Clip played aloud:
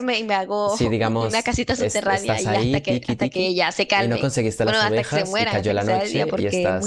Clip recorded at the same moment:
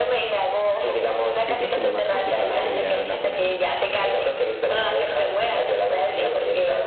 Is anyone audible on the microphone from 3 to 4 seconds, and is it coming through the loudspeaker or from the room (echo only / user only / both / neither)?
both